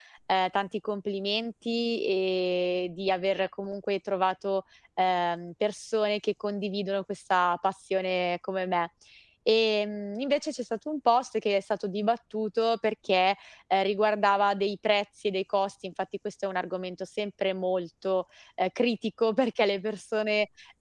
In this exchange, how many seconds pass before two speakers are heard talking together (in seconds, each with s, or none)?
none